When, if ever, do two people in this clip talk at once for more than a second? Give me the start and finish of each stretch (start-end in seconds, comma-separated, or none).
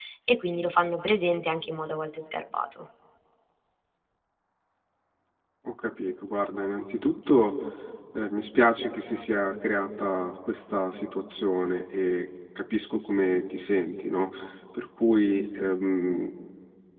none